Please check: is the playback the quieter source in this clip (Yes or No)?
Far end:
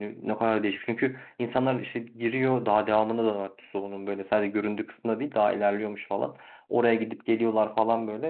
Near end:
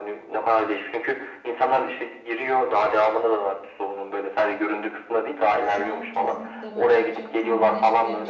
No